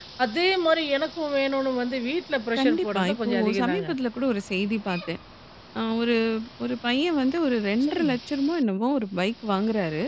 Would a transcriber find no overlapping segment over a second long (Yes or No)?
No